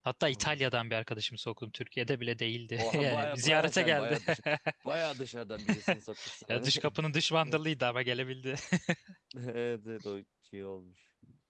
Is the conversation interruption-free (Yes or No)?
No